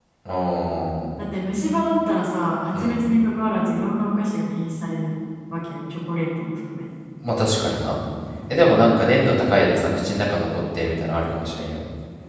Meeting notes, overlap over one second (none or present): none